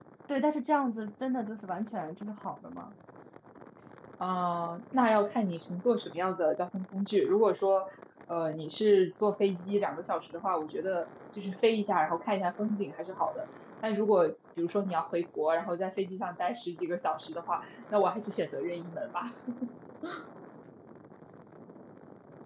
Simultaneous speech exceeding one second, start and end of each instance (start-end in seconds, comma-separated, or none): none